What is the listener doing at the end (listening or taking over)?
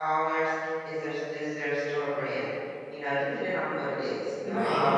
taking over